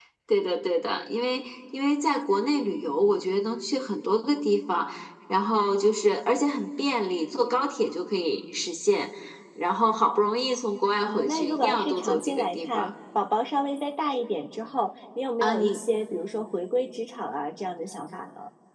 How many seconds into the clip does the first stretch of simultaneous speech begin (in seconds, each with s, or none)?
11.0 s